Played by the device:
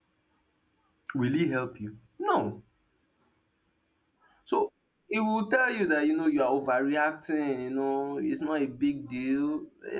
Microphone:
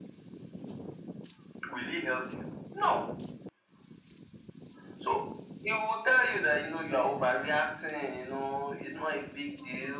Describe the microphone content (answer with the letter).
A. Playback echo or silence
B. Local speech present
A